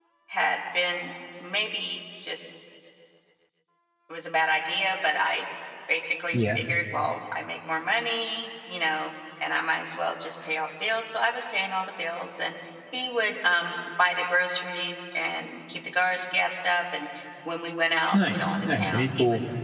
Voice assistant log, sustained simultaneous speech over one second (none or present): present